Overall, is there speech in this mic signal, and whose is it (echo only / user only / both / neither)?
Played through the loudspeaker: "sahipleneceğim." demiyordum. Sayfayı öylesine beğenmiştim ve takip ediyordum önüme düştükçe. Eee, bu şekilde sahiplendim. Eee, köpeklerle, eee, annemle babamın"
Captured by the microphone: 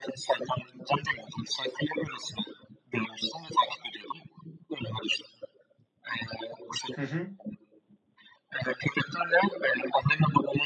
both